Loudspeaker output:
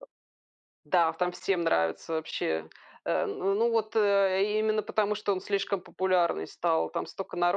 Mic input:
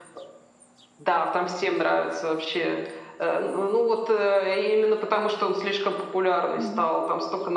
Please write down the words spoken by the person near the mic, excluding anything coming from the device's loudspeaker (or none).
Мгм.